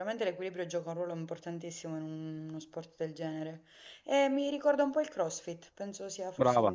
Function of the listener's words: taking over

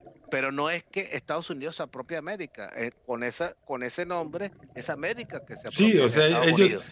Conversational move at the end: taking over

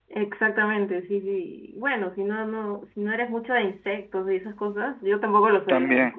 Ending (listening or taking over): listening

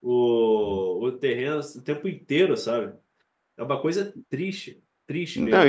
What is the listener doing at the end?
taking over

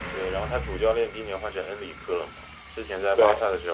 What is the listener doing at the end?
listening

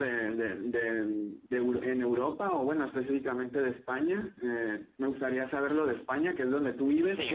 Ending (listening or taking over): listening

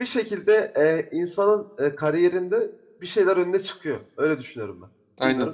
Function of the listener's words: taking over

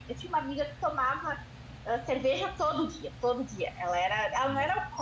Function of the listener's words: listening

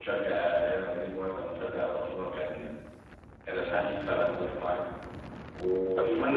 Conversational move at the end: listening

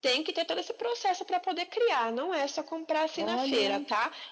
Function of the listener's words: listening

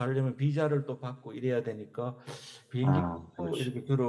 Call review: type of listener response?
listening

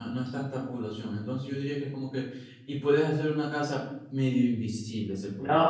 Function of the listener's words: taking over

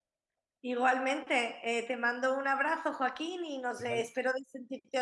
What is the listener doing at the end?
listening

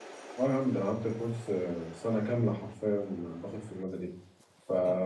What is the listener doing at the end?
listening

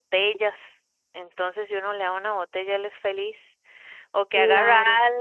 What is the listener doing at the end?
listening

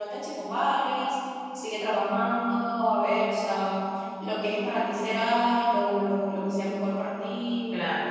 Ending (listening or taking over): taking over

